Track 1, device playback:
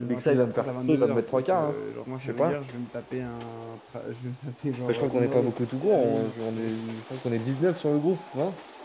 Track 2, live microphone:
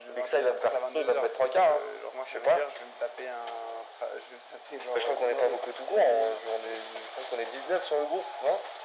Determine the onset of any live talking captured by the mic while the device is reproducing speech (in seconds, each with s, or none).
none